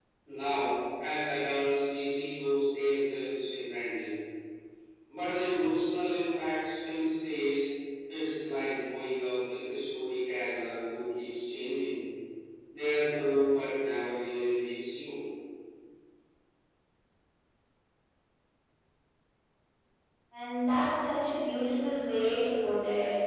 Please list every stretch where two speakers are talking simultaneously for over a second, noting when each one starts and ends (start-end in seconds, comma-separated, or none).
none